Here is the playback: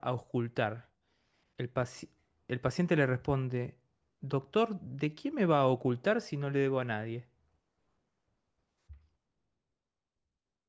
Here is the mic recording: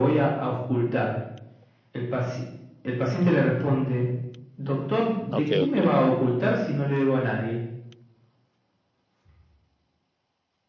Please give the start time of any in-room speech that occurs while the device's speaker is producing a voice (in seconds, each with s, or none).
5.3 s